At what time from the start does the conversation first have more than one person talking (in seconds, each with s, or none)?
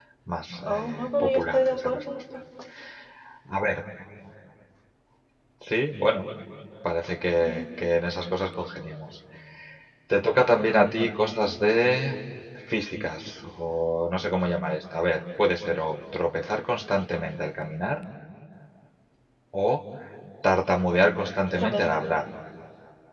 0.7 s